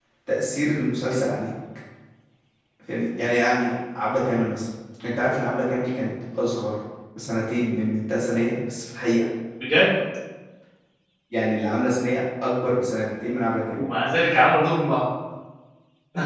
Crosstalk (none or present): none